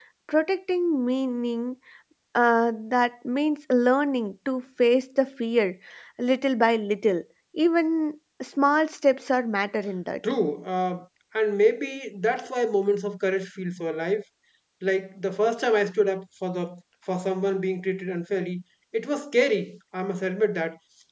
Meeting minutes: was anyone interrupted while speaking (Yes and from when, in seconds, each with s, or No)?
No